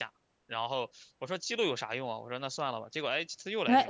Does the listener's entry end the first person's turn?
Yes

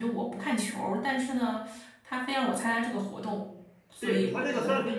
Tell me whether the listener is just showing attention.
No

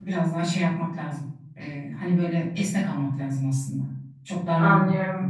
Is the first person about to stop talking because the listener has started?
Yes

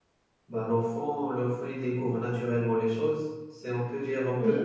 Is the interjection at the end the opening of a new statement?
No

